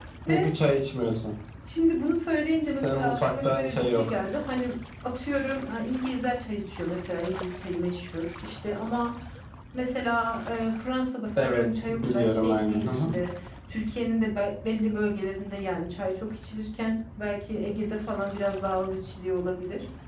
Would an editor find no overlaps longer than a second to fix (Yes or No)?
No